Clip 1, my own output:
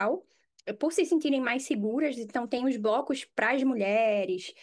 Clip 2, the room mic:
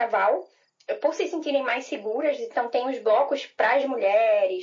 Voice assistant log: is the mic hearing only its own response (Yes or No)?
Yes